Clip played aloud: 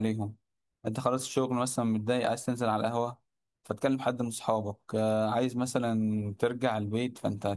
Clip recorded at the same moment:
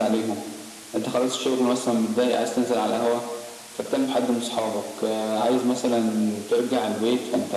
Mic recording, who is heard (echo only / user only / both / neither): echo only